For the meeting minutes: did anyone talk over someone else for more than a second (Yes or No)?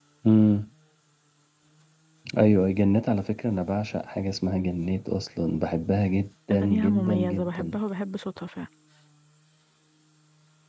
Yes